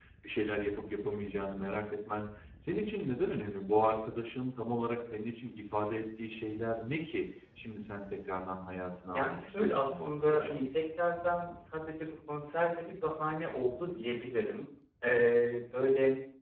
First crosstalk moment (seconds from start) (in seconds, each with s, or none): 9.1 s